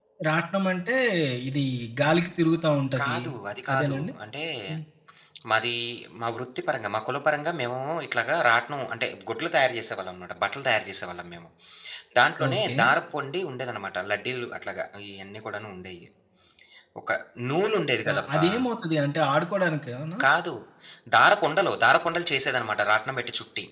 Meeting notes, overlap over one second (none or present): none